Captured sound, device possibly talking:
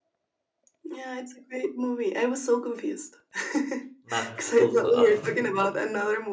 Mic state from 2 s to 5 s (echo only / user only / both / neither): both